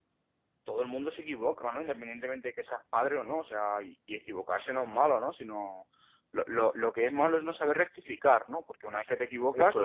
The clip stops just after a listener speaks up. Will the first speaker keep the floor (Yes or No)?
Yes